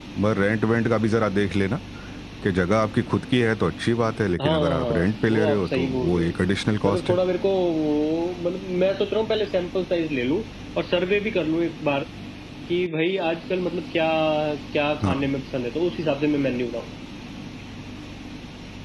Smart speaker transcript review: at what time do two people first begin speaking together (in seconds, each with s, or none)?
4.4 s